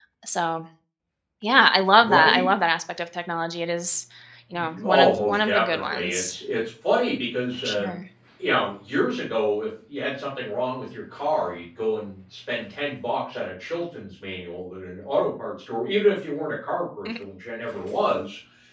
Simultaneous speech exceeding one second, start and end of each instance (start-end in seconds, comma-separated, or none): 4.8-6.4